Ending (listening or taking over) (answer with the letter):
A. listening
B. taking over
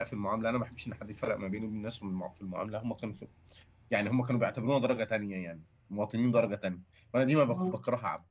A